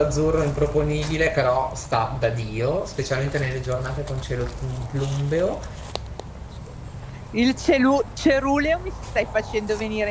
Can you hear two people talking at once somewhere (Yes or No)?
No